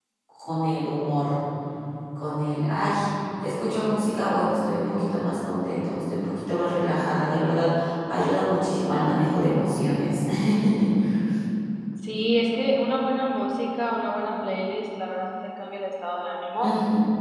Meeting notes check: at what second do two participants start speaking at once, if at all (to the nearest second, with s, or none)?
none